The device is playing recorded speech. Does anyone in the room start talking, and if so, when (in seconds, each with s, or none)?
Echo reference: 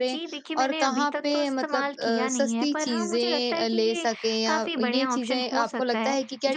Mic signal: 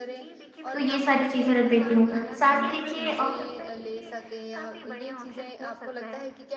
0.7 s